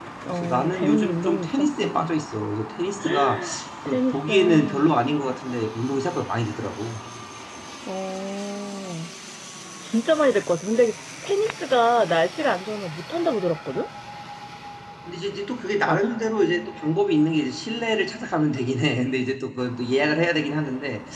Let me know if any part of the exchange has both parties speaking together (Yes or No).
Yes